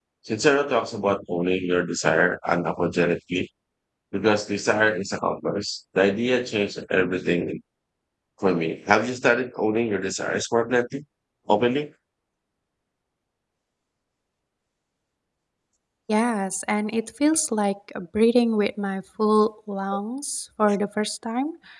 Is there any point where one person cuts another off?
No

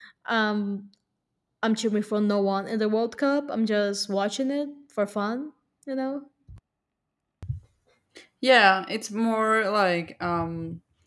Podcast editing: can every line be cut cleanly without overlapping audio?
Yes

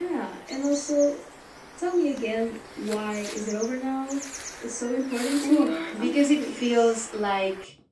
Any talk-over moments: Yes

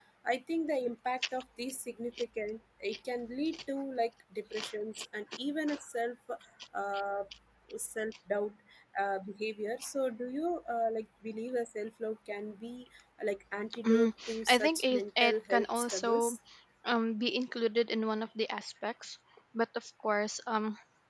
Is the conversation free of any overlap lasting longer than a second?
No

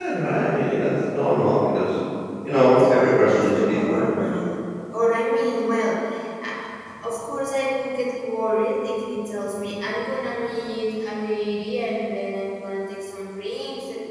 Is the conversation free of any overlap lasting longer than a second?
No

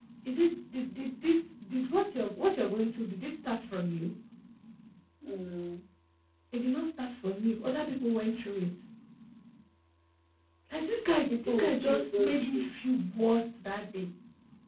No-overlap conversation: No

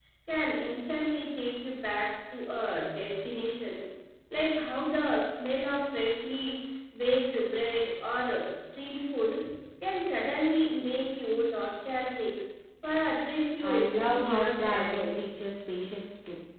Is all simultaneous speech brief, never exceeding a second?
No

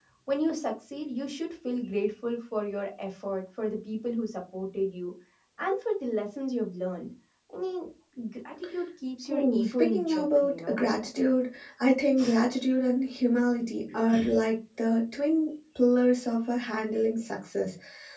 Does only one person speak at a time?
No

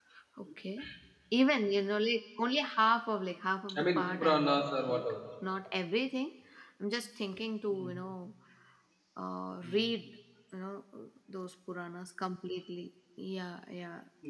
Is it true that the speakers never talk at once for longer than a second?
No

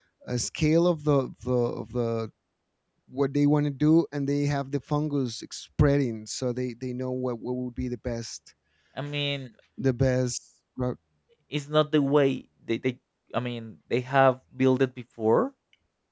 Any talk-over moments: No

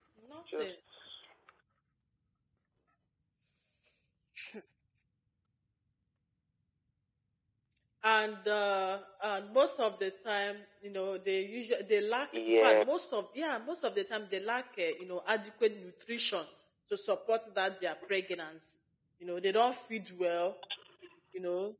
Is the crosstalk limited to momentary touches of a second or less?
Yes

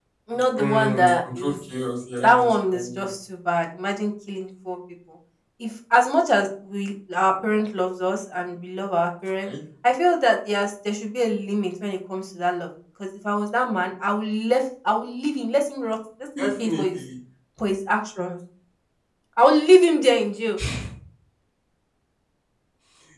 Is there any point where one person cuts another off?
Yes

